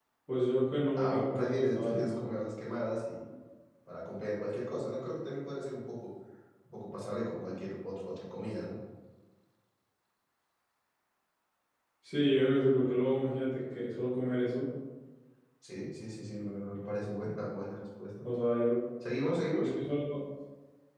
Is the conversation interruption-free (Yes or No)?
No